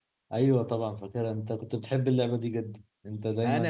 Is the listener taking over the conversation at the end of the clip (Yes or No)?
Yes